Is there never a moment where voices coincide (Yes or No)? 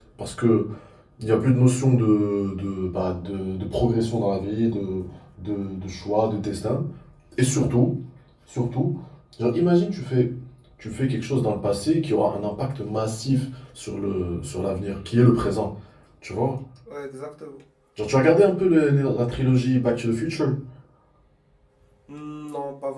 Yes